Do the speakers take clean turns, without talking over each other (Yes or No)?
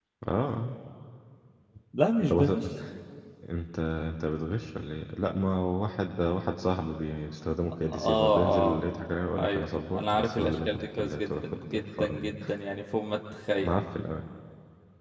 No